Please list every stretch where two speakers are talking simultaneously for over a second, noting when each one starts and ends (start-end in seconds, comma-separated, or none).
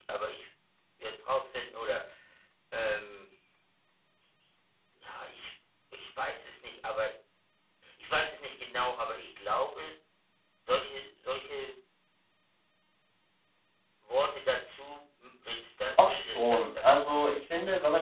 16.0-17.3